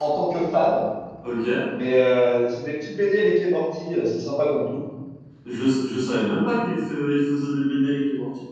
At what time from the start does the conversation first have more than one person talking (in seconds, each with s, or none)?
none